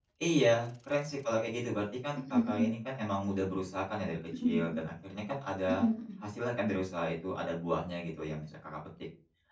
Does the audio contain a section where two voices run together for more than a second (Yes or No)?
No